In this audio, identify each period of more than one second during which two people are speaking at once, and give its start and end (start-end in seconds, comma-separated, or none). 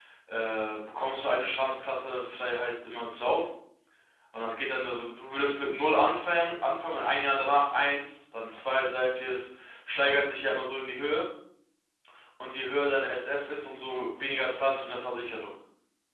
none